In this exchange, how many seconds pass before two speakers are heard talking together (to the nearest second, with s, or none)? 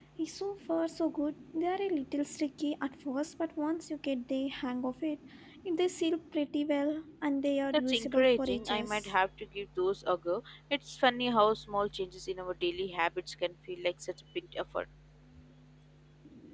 8 s